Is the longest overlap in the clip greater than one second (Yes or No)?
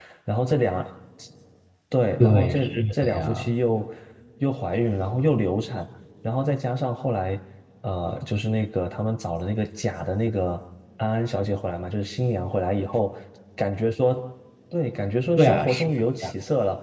Yes